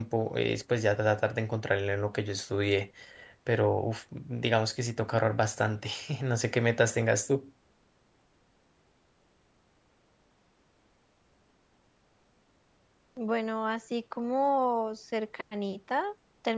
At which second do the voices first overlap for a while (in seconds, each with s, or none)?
none